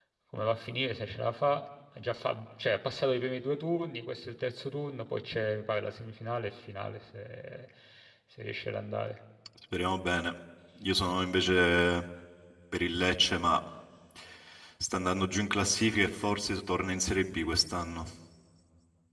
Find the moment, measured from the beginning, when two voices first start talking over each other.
none

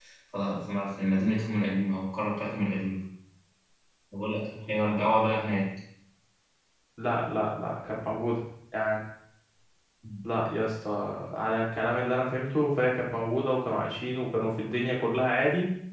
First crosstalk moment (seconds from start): none

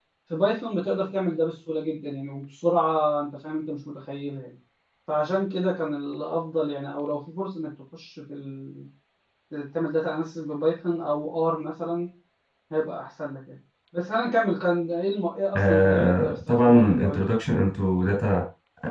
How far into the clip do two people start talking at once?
15.6 s

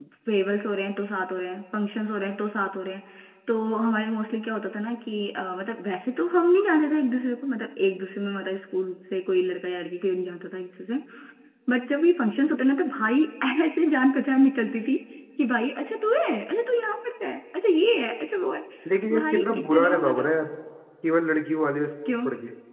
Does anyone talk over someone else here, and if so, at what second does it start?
19.1 s

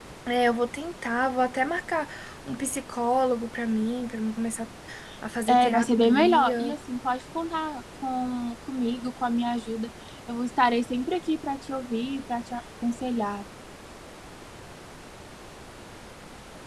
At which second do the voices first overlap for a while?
5.5 s

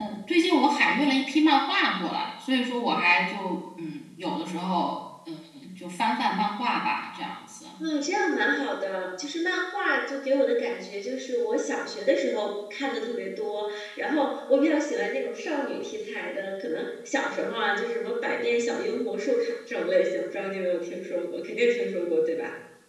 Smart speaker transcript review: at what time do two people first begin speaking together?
none

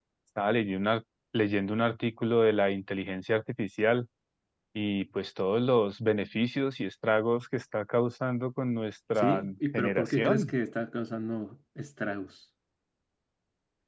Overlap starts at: 9.2 s

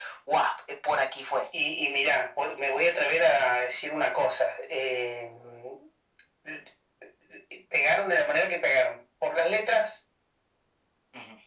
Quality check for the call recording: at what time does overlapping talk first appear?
none

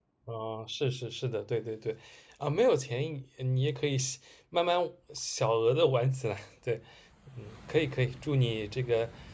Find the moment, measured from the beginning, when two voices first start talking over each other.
none

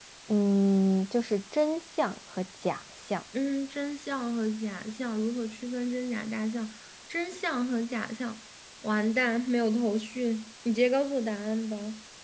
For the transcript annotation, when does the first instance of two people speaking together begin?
none

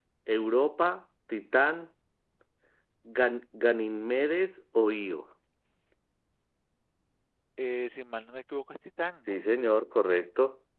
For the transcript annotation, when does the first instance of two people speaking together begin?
none

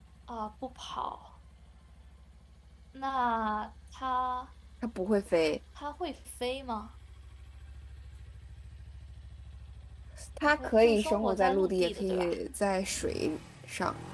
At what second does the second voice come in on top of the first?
10.6 s

